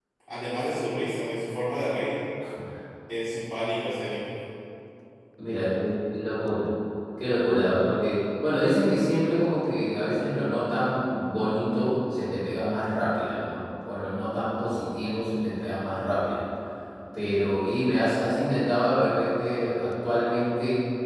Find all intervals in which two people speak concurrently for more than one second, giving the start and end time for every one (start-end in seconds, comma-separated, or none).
none